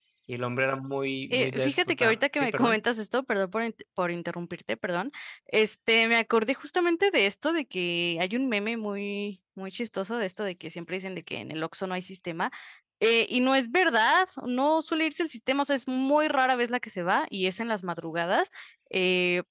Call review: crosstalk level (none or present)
present